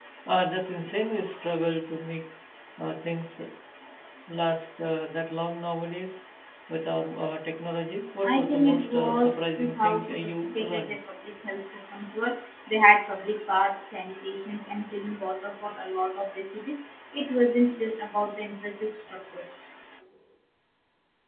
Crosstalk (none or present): present